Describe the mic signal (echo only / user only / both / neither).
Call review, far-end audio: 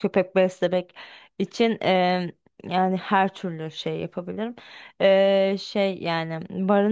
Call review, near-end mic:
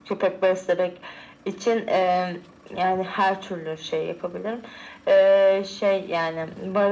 echo only